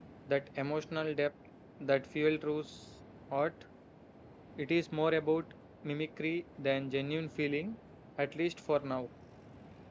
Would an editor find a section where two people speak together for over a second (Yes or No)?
No